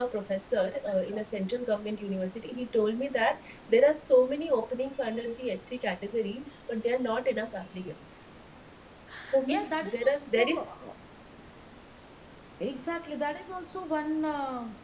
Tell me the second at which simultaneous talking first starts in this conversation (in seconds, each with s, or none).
9.5 s